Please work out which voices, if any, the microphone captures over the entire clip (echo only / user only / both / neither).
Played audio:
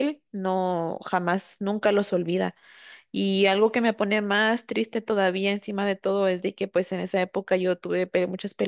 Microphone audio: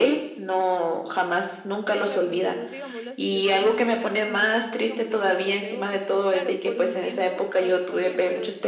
both